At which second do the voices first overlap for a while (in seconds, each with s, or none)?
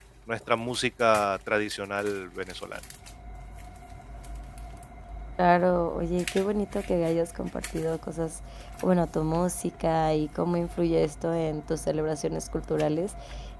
none